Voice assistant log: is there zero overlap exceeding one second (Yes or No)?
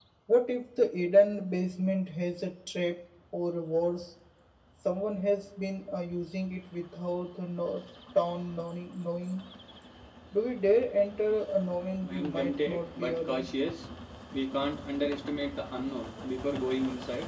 No